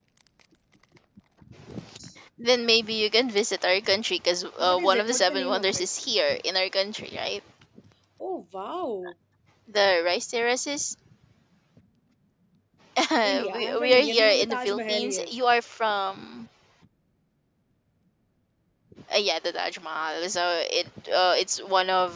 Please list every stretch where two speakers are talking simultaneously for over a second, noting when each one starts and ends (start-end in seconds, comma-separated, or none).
4.6-5.8, 13.3-15.3